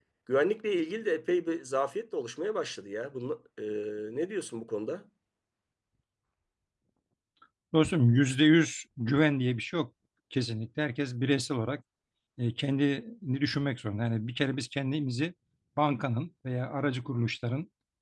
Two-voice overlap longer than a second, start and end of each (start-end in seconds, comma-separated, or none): none